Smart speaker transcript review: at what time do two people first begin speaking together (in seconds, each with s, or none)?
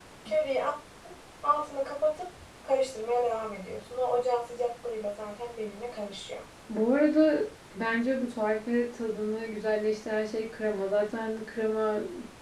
none